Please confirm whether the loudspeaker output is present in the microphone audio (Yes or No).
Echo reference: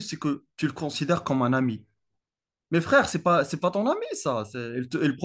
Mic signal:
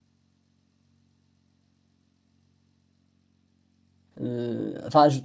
No